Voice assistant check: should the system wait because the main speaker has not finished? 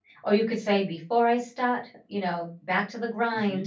Yes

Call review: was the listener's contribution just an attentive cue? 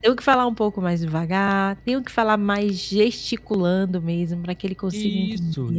No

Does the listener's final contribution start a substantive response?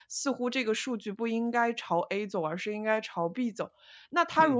No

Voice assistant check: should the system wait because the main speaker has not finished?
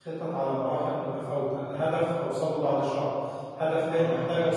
Yes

